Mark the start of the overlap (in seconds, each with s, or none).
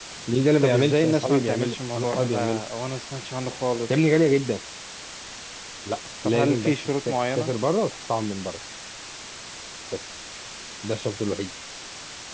0.6 s